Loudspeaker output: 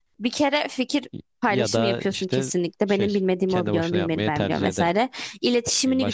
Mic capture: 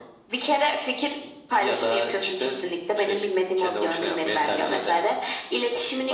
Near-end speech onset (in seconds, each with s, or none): none